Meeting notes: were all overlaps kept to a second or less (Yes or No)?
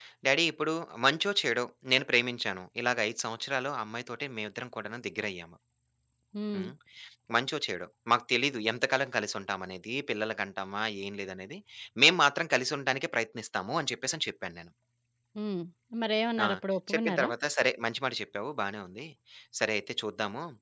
Yes